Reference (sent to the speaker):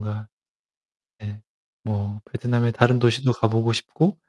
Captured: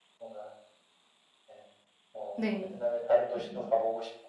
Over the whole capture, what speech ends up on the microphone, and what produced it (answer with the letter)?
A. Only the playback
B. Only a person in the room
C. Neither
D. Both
D